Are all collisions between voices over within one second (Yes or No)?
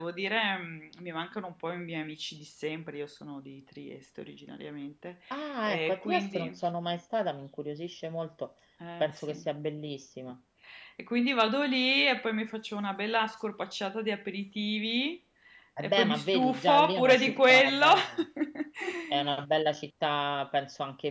No